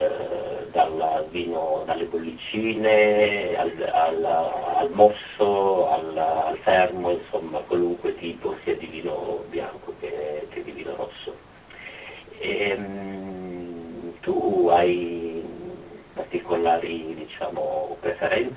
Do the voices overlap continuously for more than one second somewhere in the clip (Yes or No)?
No